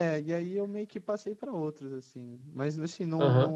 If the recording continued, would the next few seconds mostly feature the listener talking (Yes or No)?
Yes